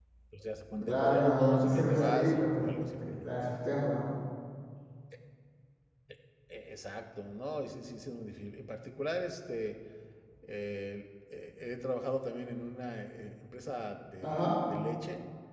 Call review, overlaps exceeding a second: present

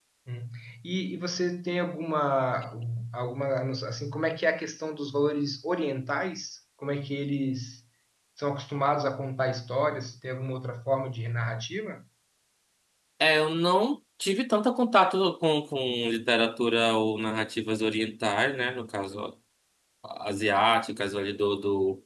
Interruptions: none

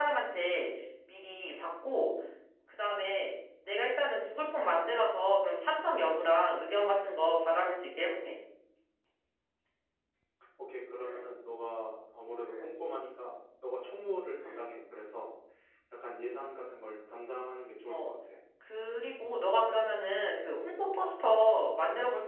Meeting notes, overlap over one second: none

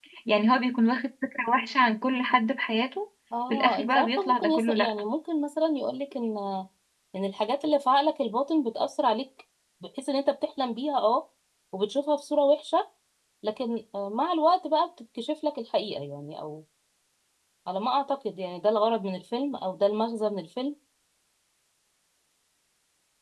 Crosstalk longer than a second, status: present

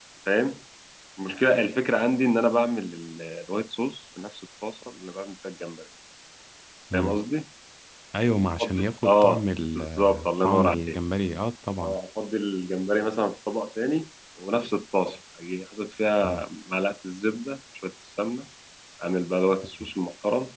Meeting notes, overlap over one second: present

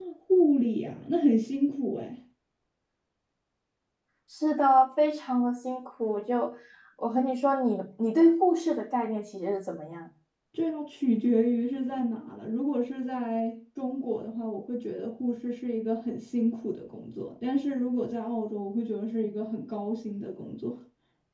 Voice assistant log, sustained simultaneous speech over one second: none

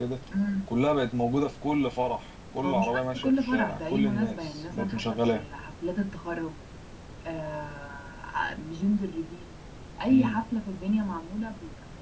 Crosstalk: present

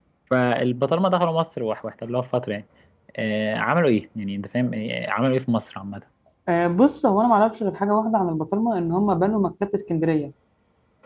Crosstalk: none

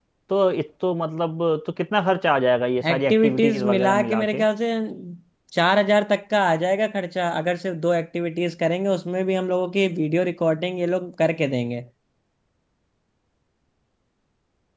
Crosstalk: present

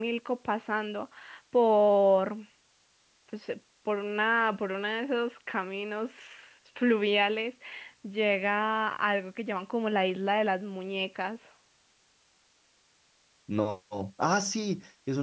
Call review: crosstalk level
none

